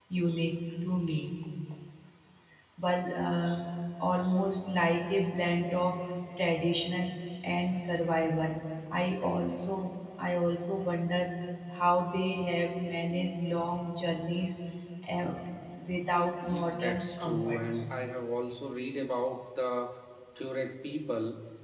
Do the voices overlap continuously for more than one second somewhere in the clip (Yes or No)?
Yes